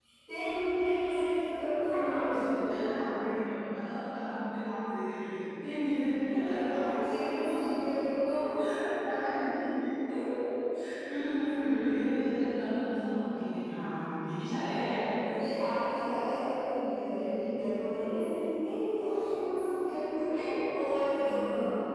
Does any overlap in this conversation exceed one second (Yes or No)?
Yes